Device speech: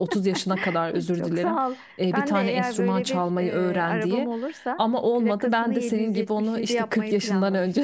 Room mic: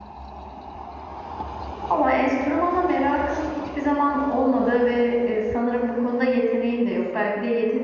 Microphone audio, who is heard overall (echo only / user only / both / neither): user only